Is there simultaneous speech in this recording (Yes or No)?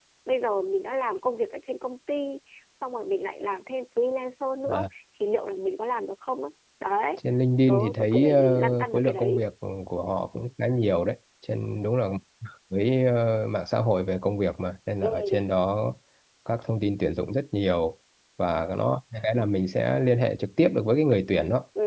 Yes